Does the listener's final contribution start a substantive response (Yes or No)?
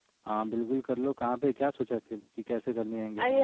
Yes